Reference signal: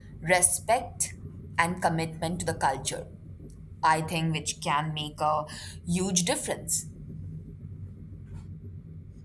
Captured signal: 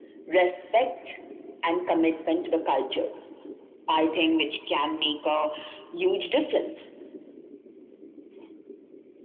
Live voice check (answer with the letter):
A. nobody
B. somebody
A